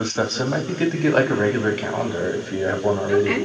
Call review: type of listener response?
listening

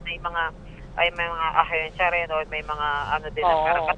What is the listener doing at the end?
listening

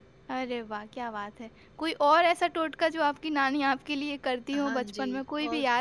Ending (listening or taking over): taking over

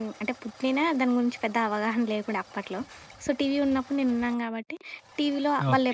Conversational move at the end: listening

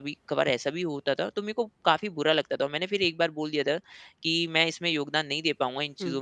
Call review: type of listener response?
listening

